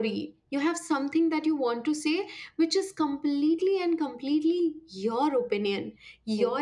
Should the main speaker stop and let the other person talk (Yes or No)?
No